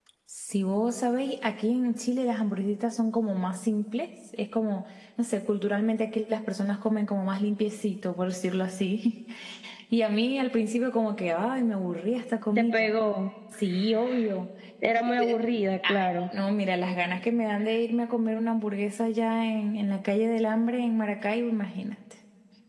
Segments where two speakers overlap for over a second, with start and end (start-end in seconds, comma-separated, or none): none